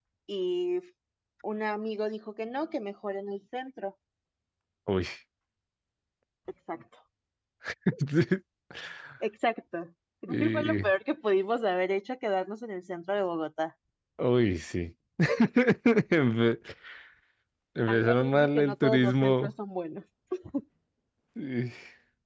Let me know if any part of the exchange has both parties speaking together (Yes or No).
Yes